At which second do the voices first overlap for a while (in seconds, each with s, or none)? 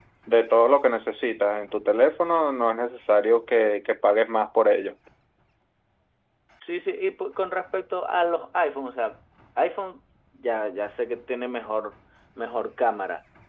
none